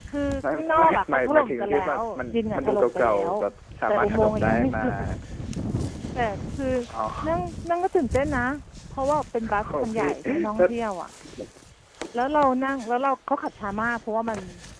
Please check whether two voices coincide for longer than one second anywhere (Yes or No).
Yes